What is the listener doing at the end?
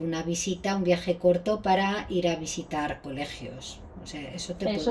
taking over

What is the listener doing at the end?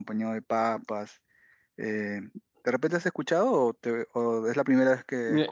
taking over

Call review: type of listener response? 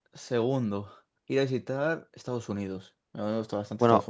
taking over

